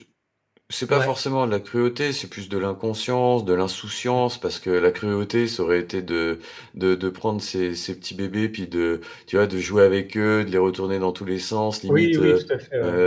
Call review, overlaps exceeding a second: none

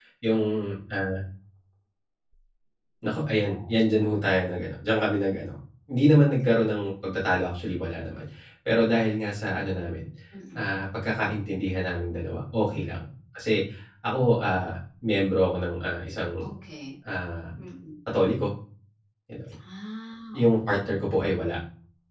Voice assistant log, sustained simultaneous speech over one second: none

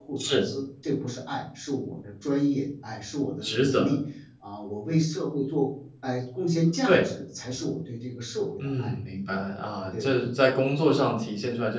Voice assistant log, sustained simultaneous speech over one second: none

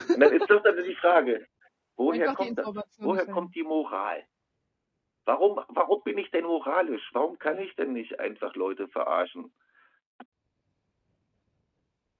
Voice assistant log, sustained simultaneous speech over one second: present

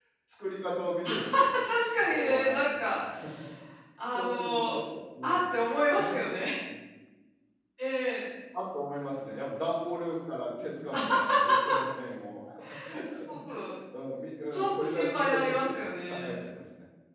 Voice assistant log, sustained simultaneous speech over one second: present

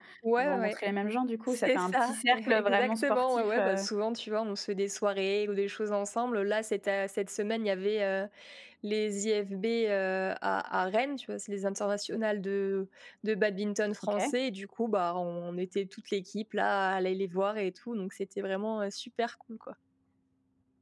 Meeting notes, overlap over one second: present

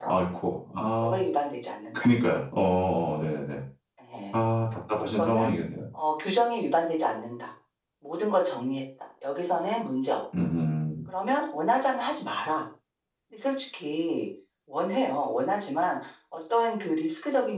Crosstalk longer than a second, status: none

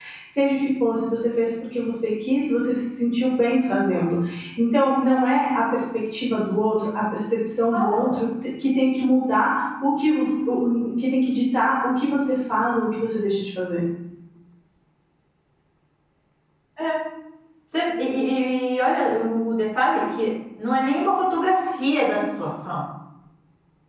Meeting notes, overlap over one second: none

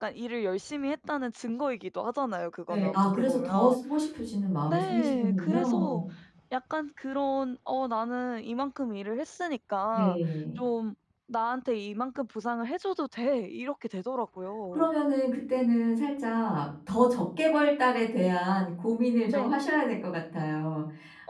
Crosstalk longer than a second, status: present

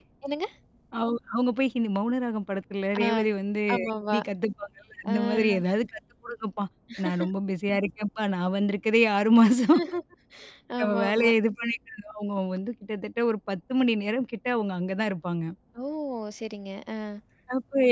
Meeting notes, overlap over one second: none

